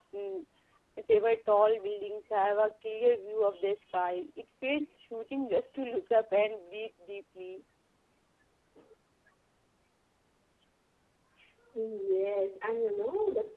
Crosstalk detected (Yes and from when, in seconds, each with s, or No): No